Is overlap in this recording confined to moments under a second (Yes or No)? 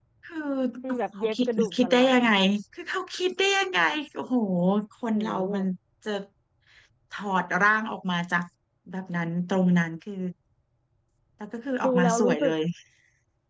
No